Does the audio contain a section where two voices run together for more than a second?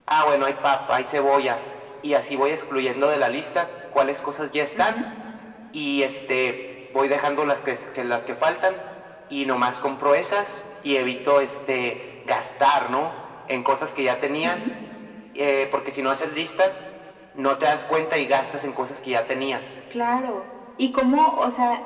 No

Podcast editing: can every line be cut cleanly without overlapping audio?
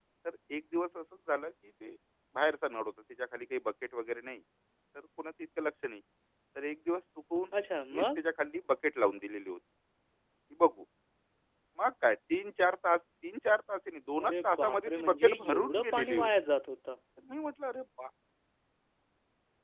No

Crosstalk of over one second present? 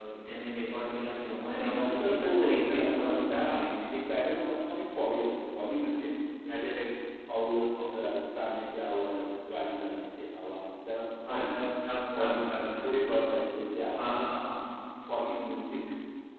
Yes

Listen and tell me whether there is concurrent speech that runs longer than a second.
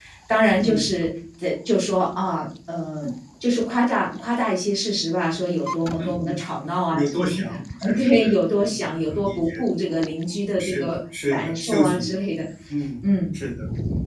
Yes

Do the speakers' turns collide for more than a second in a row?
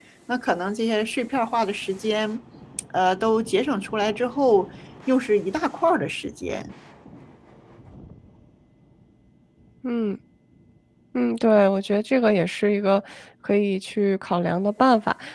No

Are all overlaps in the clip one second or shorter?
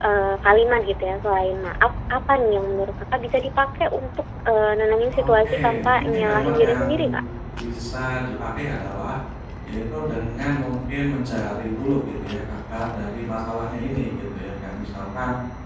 No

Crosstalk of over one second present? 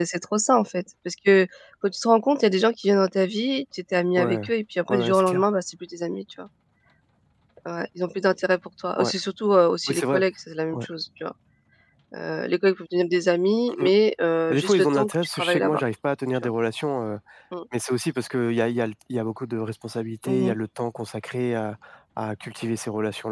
Yes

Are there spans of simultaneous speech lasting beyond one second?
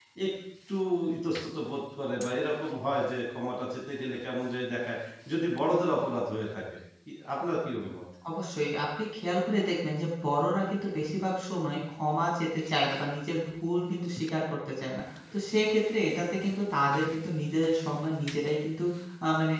No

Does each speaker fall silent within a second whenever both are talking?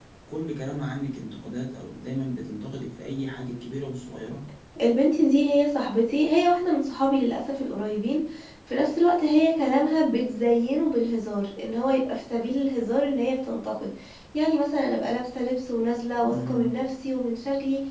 Yes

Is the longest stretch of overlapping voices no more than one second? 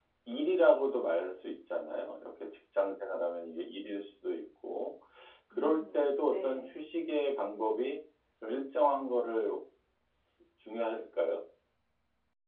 No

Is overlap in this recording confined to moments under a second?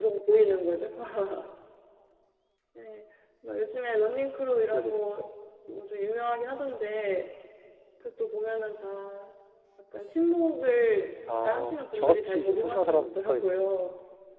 No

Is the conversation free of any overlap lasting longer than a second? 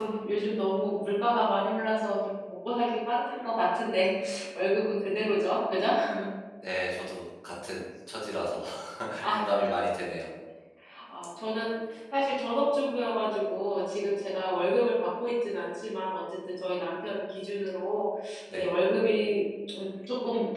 Yes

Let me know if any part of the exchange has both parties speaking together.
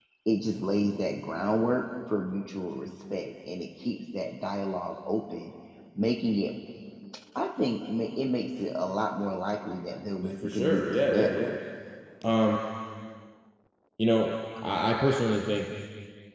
Yes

